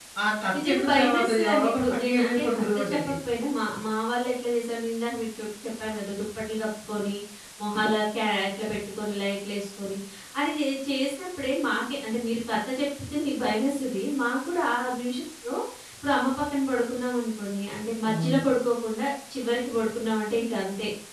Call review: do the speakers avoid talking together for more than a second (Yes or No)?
No